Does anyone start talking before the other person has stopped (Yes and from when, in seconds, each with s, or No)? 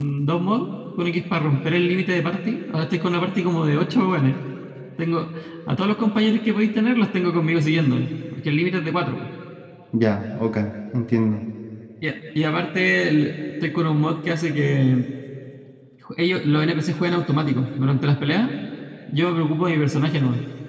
No